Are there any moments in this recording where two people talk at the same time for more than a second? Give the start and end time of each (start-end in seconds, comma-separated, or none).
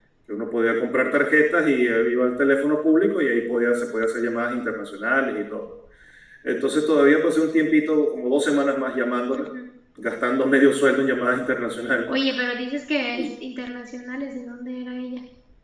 none